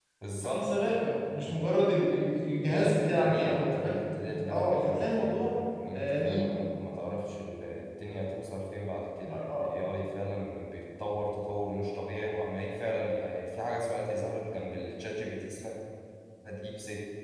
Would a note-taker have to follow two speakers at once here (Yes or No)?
Yes